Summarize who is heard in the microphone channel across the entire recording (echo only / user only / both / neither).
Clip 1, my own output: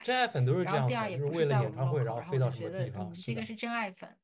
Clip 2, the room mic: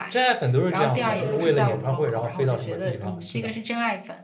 both